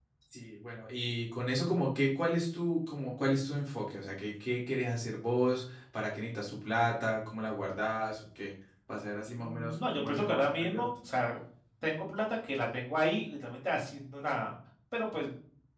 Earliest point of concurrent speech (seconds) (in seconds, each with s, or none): 9.4 s